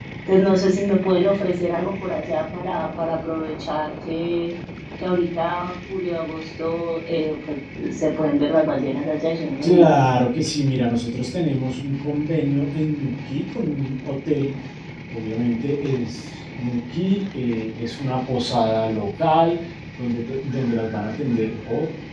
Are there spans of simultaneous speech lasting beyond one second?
No

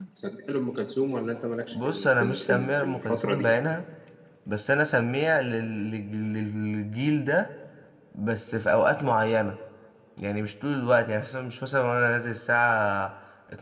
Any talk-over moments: Yes, from 1.7 s

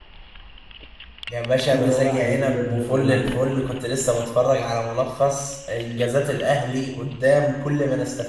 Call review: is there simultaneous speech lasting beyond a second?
Yes, from 1.7 s

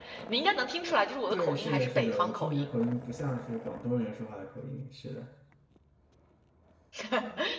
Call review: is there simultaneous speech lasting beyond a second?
Yes, from 1.3 s

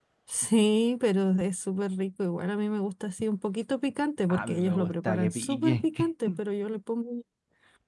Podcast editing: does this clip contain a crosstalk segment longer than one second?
Yes, from 4.3 s

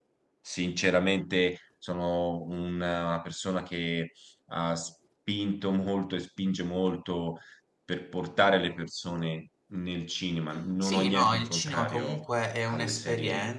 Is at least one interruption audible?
Yes, from 10.8 s

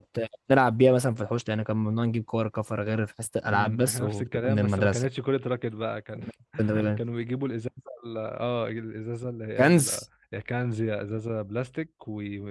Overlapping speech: Yes, from 3.5 s

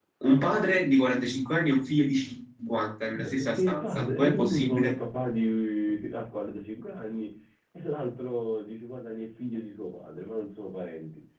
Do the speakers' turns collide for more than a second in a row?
Yes, from 3.1 s

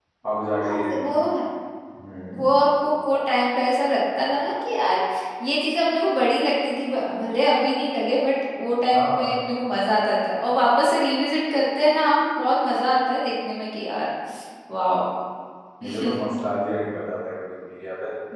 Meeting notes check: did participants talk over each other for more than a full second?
No

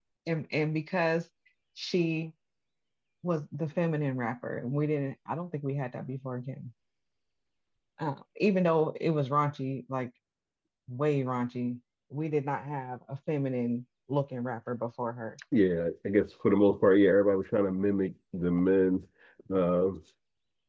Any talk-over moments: No

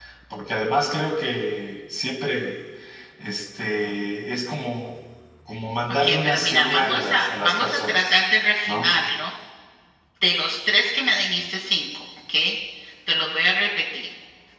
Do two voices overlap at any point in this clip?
Yes, from 6.0 s

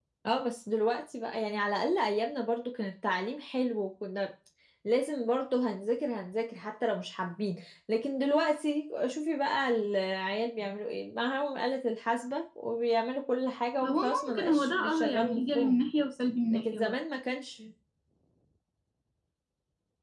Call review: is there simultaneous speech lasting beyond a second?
Yes, from 13.8 s

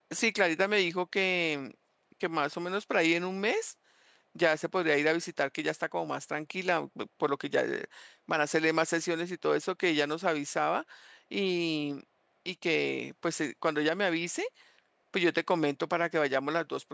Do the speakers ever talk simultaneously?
No

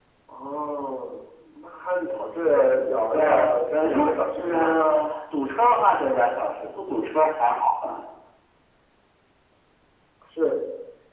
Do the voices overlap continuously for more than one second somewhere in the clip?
Yes, from 3.1 s

